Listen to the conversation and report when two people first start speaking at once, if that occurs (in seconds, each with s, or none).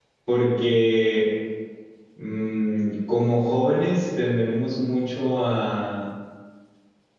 none